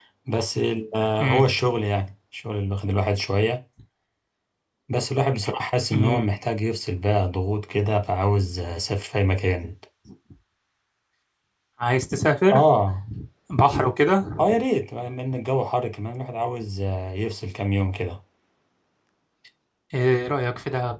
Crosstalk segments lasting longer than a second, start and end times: none

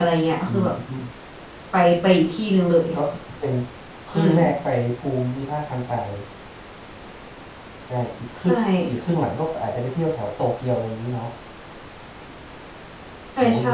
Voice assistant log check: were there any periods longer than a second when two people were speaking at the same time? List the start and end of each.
none

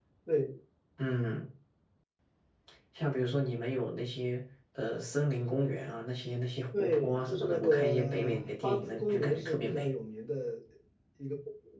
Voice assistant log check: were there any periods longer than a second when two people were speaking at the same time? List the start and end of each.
6.7-9.9

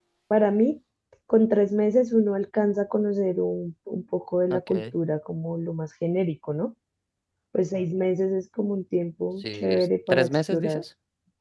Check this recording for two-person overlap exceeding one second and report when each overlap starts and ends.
9.6-10.8

